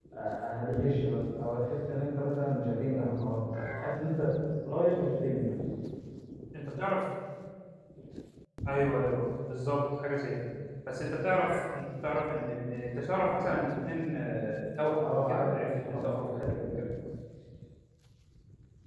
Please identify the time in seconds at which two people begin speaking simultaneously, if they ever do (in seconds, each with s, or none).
15.0 s